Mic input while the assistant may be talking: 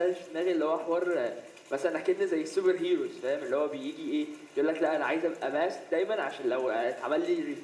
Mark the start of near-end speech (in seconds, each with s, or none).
none